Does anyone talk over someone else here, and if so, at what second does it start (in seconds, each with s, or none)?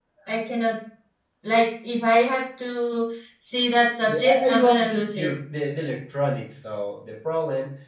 4.1 s